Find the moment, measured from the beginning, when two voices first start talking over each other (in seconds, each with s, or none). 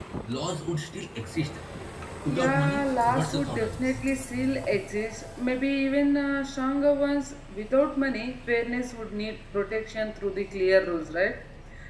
2.3 s